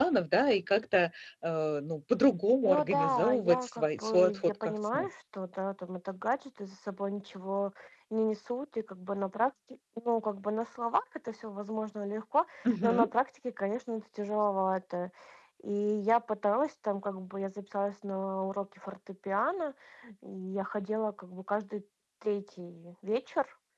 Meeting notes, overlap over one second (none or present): present